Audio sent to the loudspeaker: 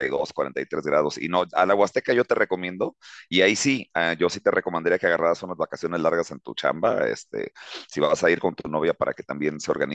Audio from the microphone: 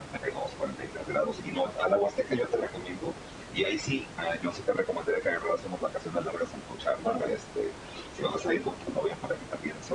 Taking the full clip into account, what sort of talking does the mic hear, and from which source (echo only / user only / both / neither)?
echo only